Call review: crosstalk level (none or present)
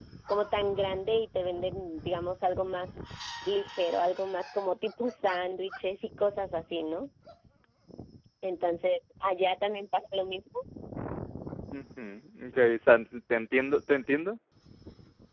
none